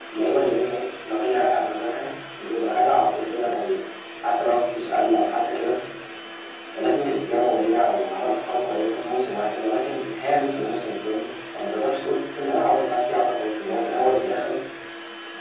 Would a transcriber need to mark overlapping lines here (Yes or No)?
No